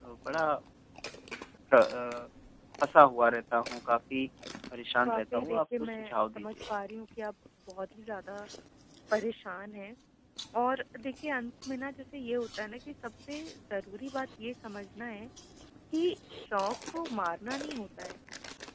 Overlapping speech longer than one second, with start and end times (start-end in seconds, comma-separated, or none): 5.0-6.5